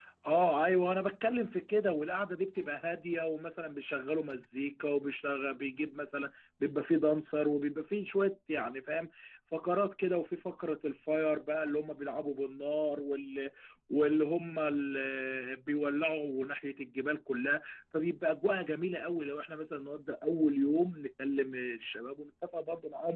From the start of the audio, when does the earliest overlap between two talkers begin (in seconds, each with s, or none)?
none